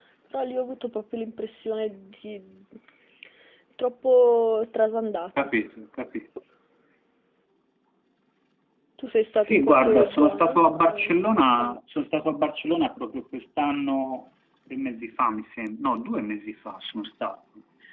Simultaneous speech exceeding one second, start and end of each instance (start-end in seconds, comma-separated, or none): 9.4-11.8